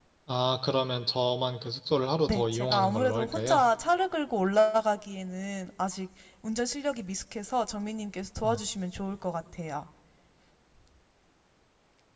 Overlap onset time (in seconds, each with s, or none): 2.3 s